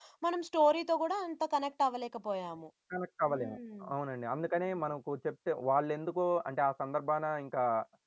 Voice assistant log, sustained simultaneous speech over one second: none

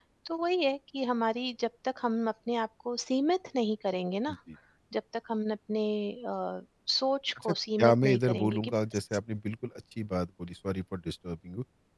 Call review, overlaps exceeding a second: present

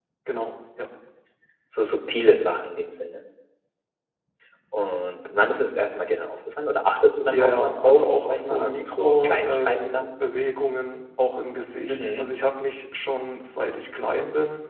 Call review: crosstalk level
present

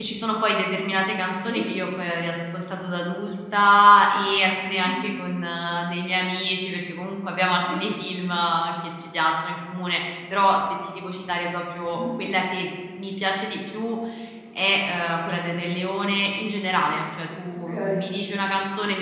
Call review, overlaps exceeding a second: none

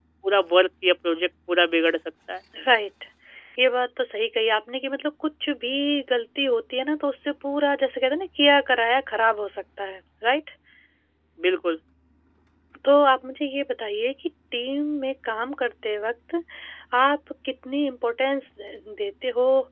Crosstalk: none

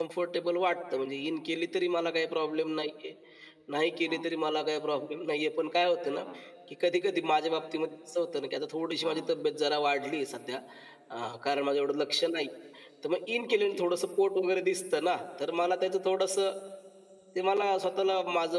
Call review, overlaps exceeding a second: none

